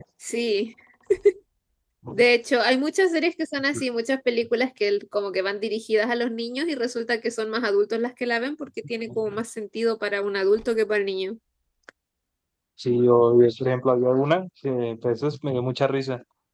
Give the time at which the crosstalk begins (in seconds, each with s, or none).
none